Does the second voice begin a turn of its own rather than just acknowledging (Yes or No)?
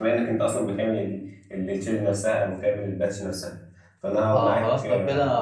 Yes